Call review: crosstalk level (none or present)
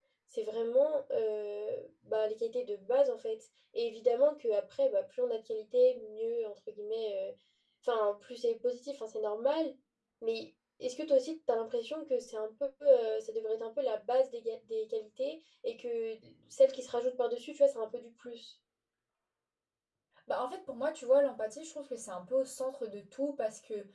none